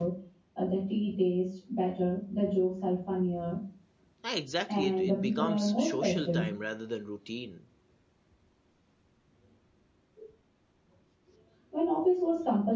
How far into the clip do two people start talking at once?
4.7 s

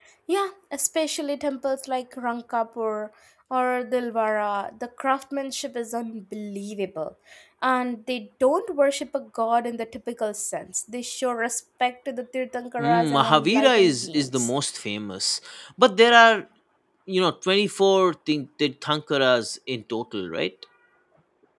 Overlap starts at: 12.8 s

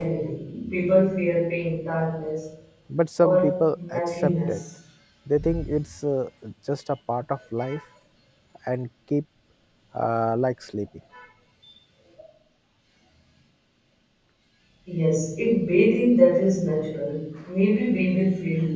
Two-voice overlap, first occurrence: 3.2 s

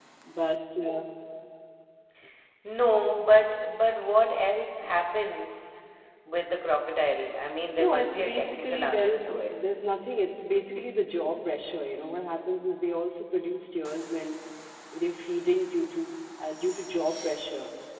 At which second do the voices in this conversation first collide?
7.8 s

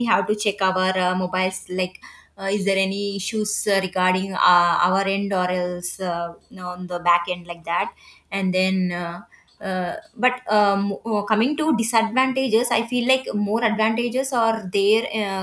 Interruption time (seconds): none

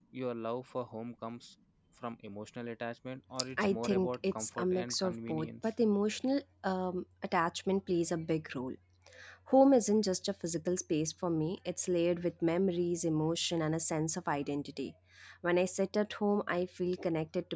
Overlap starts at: 3.6 s

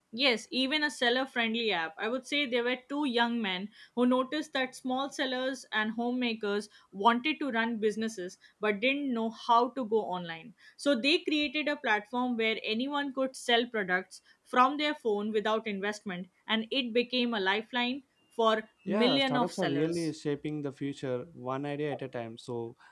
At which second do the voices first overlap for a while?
18.9 s

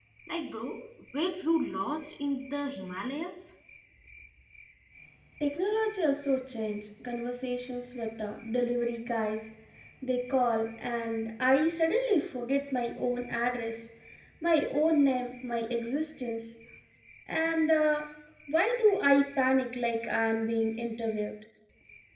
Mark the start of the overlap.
none

